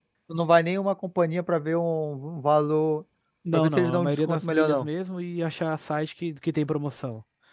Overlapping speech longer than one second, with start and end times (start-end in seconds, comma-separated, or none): 3.5-4.9